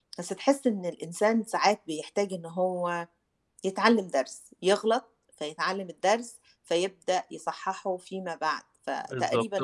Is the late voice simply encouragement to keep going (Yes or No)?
No